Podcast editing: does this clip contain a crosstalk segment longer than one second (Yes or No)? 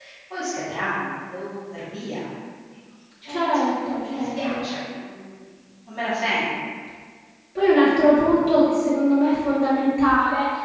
No